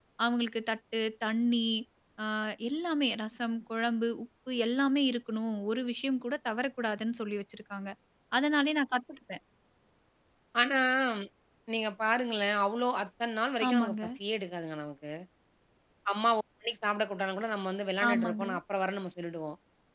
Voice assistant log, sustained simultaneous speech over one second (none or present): none